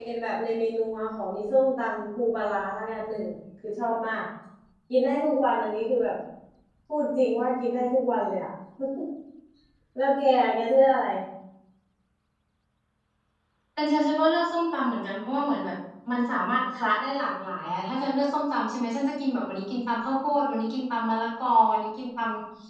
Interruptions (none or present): none